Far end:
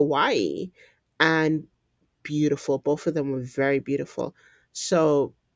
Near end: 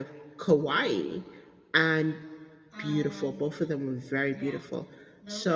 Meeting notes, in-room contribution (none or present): present